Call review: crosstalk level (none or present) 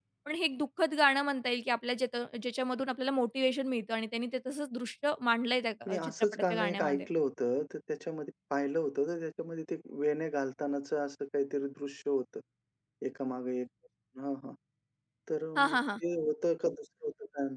present